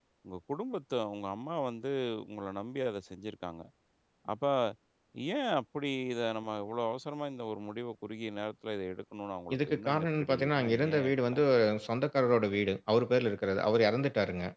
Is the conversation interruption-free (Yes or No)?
No